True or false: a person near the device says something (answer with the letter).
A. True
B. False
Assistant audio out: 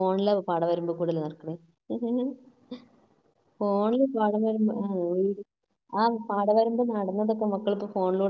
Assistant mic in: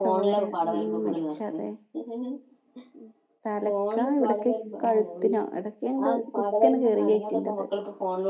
A